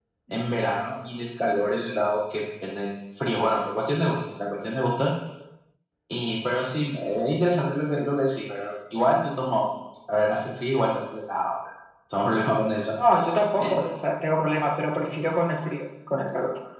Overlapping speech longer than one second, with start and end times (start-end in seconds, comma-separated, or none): none